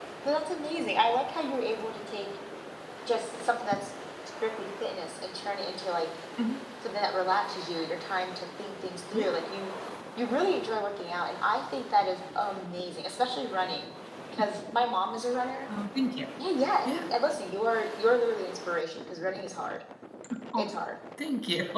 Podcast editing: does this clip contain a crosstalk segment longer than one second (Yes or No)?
No